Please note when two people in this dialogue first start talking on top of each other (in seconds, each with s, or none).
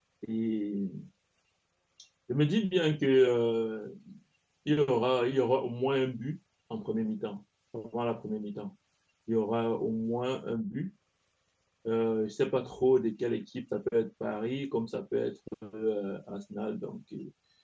none